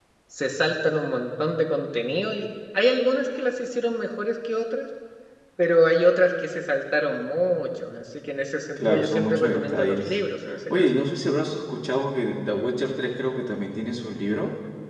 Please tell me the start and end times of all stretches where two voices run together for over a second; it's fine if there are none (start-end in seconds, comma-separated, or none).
8.8-10.2